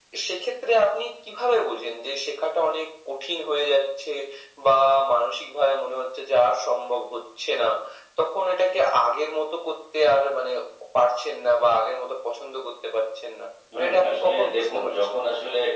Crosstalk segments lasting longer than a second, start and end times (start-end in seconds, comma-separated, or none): 13.8-15.2